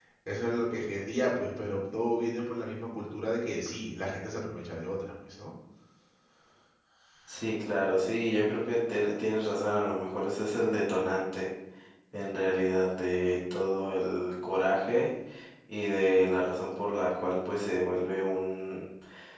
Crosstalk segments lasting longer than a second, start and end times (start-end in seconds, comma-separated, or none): none